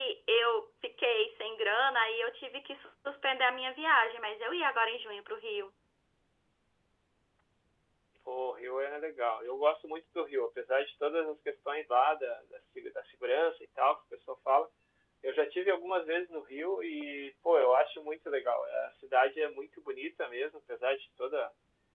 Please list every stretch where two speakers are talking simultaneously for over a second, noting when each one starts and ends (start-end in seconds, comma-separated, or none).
none